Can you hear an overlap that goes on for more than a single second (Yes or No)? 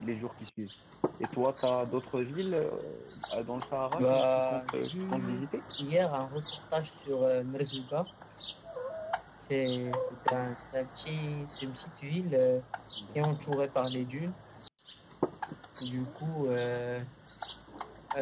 Yes